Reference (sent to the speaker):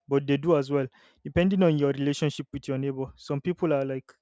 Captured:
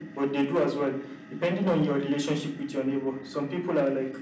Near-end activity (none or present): none